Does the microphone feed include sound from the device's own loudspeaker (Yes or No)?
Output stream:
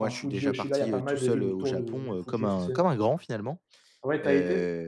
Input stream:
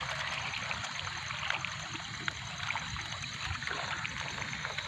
No